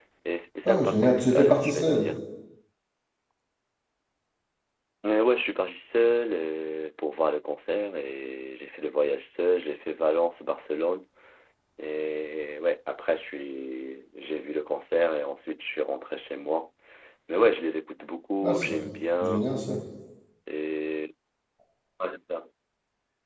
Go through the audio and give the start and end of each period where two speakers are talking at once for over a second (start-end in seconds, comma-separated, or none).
0.7-2.1